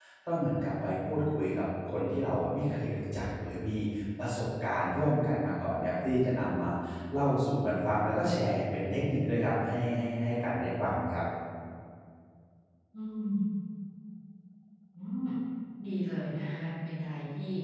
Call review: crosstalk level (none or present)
none